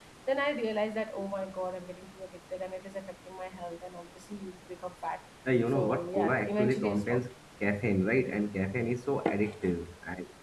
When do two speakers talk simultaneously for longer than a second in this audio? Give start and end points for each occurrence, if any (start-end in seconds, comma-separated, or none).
5.7-7.2